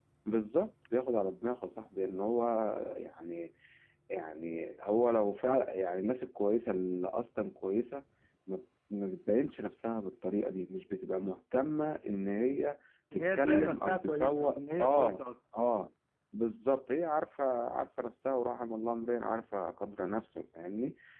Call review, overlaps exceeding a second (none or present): present